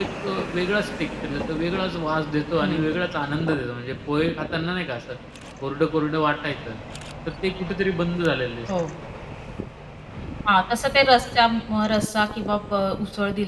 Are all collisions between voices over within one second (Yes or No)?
Yes